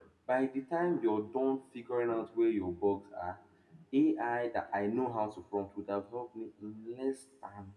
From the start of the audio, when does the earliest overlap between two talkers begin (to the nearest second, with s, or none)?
none